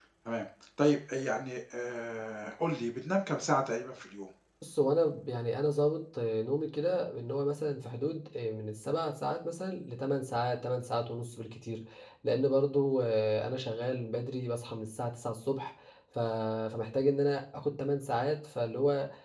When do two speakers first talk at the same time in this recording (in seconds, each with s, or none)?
none